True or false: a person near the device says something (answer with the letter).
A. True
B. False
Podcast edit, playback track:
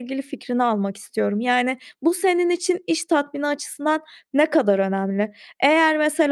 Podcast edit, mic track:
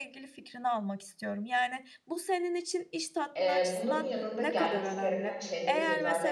A